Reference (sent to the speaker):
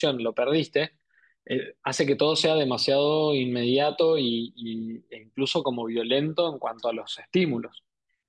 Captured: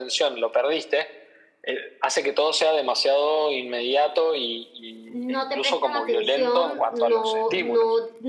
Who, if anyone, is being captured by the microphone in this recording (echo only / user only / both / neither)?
both